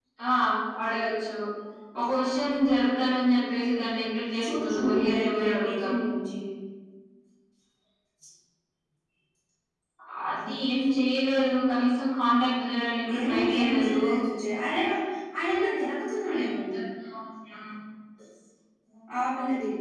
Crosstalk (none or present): present